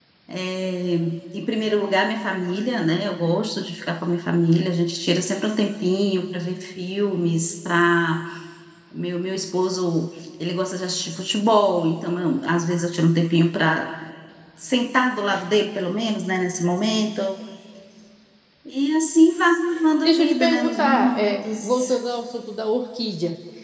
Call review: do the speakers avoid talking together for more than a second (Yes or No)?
No